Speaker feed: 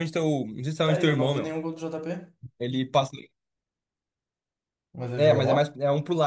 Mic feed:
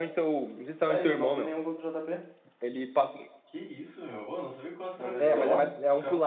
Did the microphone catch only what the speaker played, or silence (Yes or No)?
No